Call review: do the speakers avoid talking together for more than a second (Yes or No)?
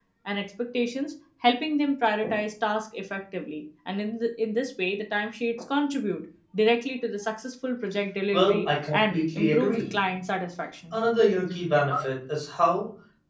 No